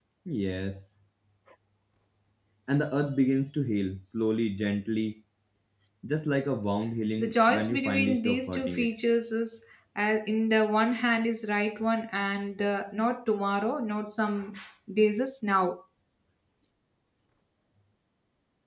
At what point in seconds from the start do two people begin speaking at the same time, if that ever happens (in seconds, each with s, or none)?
7.2 s